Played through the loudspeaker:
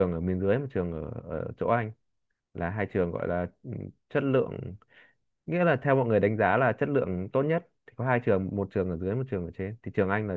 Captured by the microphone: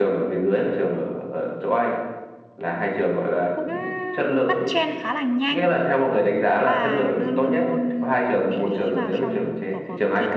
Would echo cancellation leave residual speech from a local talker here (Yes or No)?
Yes